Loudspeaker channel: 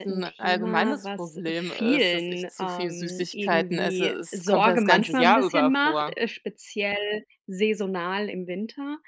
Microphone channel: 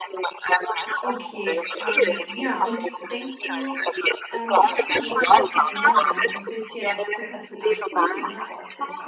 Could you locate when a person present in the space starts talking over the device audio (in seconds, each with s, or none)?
1.0 s